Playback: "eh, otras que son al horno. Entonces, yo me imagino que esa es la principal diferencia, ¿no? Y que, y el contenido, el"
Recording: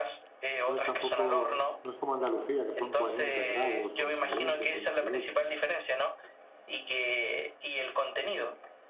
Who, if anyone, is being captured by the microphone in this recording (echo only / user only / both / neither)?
both